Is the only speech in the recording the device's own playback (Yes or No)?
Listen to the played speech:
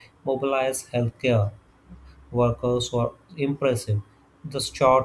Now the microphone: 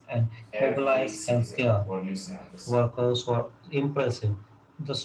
No